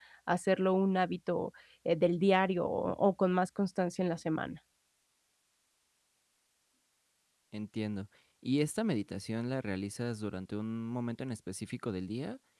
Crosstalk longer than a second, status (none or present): none